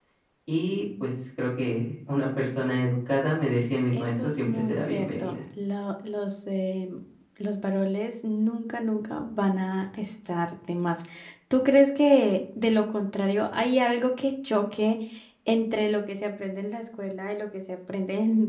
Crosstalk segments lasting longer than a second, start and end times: 3.9-5.4

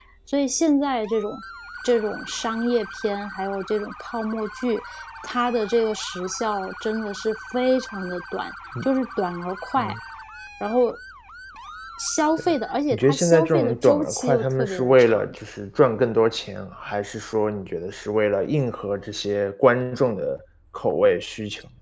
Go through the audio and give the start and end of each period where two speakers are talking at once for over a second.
12.9-15.3

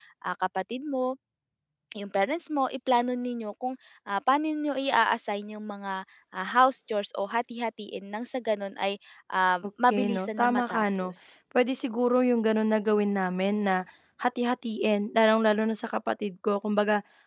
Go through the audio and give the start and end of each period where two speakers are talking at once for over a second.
9.9-11.1

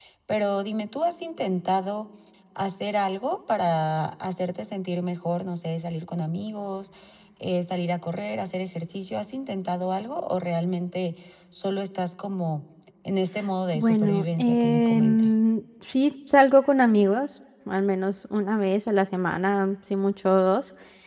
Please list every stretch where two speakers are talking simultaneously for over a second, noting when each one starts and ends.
13.7-15.3

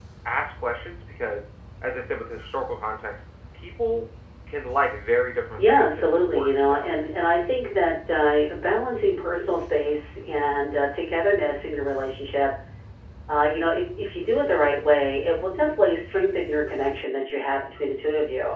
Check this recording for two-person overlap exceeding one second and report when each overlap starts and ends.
5.6-6.9

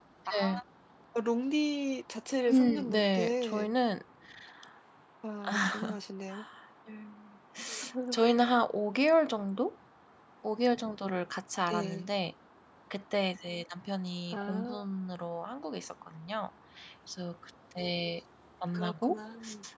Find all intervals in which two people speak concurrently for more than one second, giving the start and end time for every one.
2.5-3.7

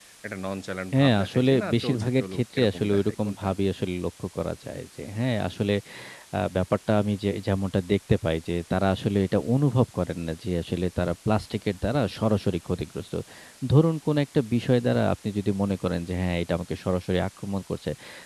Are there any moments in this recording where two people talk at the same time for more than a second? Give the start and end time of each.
1.0-3.5

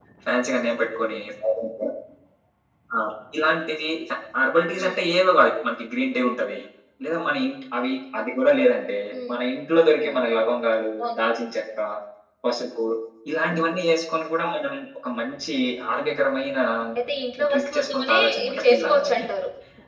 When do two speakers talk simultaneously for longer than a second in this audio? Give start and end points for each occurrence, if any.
17.5-19.2

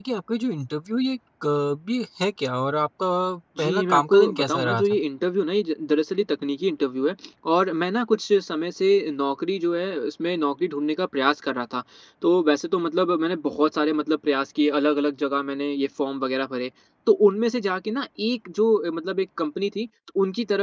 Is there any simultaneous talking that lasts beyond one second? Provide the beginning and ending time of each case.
3.6-5.0

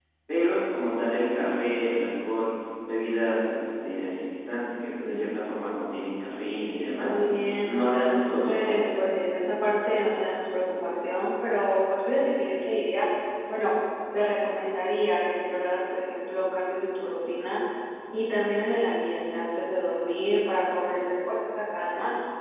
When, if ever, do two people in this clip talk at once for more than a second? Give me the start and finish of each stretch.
7.6-8.8

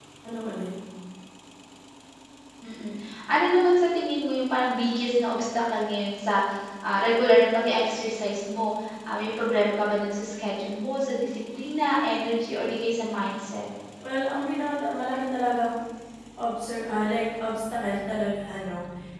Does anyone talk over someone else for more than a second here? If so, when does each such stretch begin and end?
none

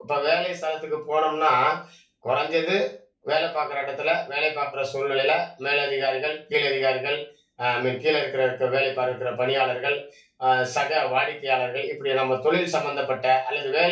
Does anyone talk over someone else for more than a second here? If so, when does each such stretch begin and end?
none

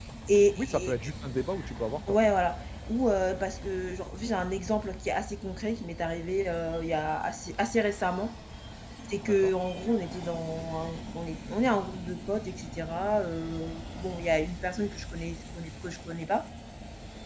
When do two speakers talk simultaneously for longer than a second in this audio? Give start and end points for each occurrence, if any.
none

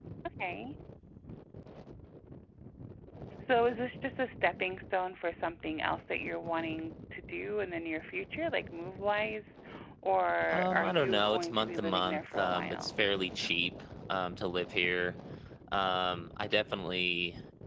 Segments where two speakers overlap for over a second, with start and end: 10.5-12.9

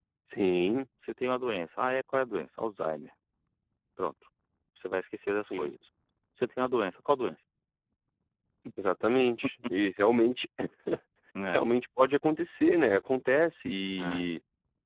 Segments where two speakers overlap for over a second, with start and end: none

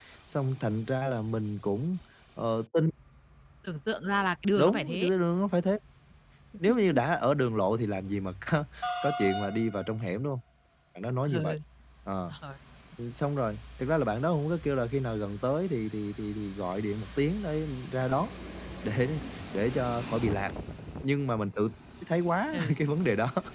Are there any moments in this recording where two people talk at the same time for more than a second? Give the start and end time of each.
none

